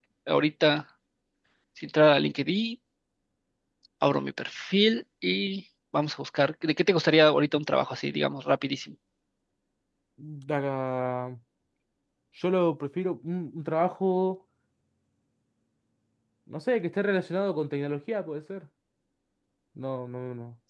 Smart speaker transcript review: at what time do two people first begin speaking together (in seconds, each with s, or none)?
none